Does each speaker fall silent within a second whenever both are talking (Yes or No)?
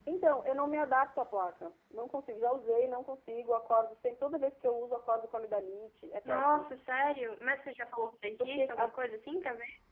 Yes